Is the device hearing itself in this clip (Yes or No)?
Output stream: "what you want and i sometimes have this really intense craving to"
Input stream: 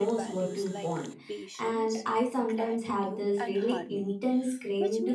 Yes